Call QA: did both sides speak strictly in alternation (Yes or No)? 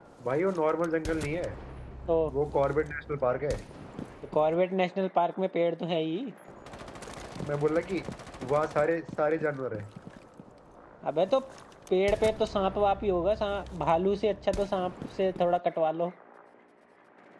Yes